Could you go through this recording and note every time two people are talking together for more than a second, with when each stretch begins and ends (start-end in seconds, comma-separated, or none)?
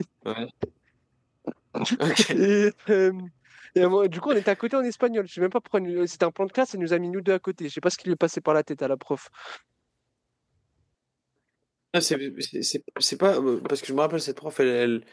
none